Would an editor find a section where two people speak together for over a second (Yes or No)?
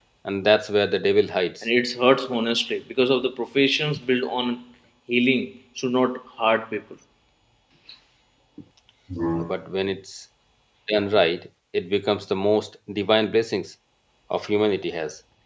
No